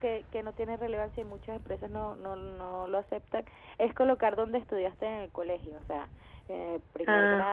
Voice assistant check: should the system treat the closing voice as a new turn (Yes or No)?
No